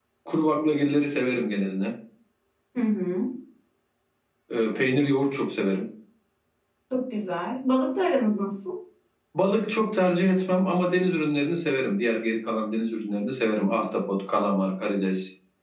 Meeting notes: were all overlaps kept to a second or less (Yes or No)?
Yes